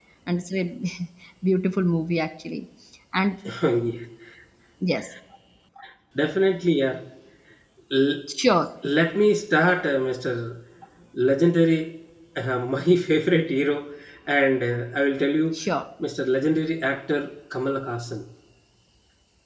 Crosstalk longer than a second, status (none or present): none